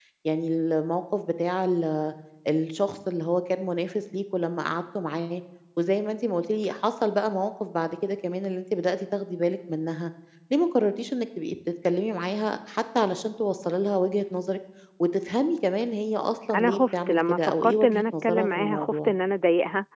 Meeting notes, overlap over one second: present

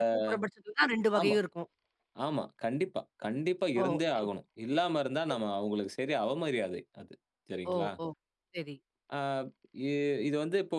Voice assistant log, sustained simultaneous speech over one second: none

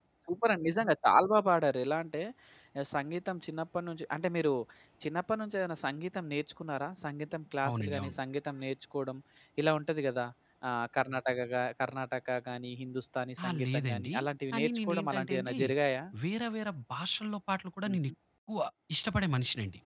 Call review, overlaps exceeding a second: present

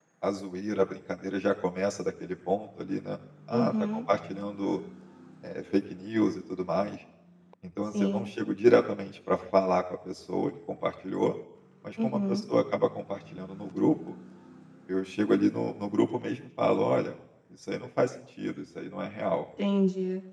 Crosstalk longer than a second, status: none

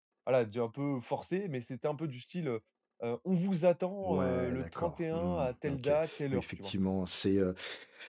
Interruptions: present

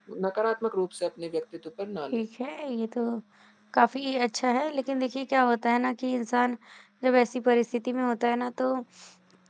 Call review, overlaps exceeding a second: none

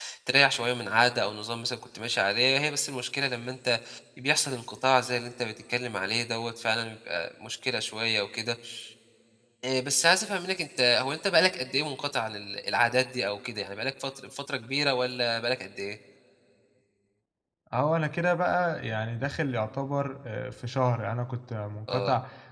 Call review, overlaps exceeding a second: none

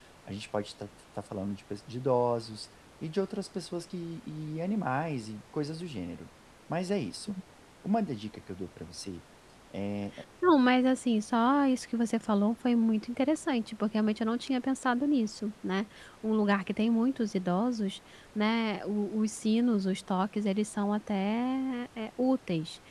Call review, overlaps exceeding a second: none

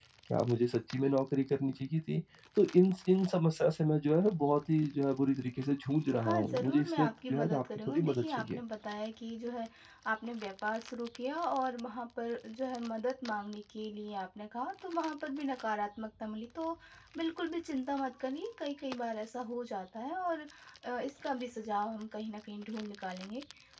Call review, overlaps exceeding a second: present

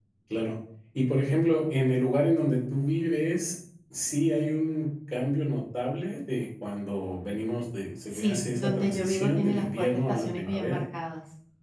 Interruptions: present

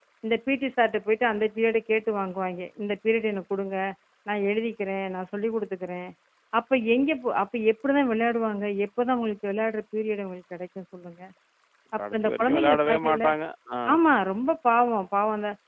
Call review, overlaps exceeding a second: present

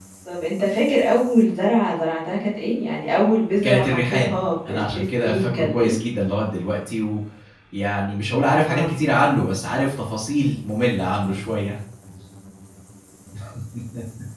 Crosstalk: present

